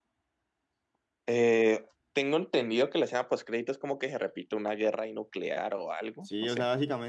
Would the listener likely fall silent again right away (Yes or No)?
No